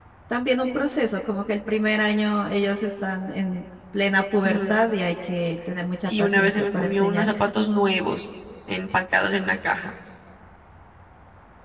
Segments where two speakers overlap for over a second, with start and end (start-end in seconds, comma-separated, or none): 6.0-7.4